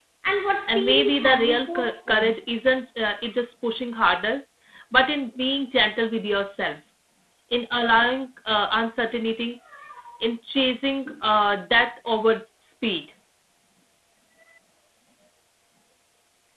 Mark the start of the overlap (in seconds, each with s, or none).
0.7 s